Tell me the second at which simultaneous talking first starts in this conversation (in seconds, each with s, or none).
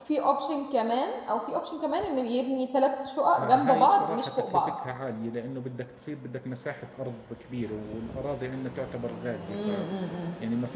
3.4 s